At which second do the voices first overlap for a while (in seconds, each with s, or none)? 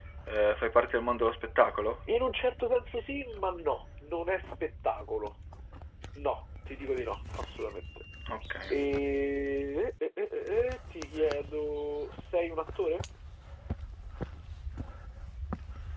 none